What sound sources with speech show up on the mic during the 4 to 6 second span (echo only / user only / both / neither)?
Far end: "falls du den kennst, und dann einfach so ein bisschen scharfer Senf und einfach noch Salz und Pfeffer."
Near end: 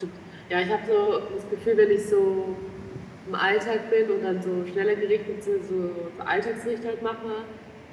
user only